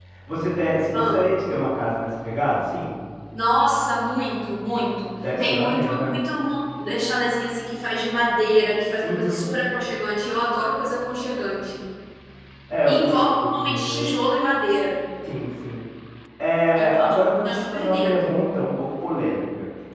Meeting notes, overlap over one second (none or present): present